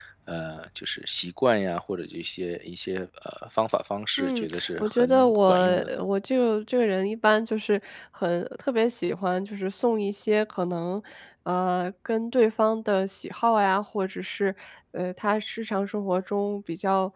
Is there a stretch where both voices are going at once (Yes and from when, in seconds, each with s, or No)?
Yes, from 4.2 s